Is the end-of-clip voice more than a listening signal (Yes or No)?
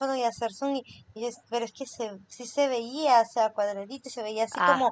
No